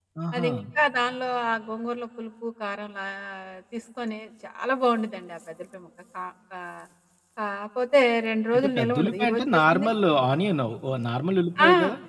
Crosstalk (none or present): present